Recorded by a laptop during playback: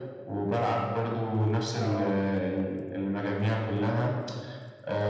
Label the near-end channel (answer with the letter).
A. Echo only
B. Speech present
B